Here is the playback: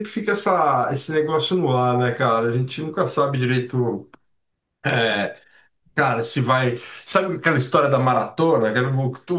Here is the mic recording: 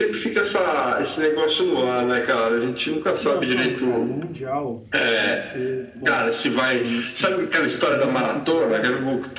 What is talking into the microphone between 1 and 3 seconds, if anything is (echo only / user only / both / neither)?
echo only